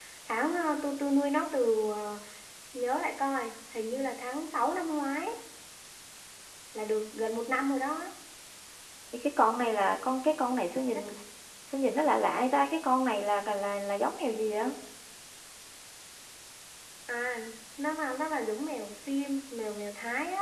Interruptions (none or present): none